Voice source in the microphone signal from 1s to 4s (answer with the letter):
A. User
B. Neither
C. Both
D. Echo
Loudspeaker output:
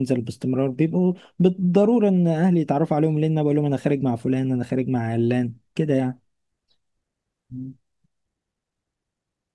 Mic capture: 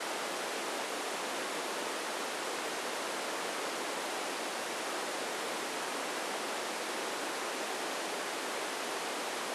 B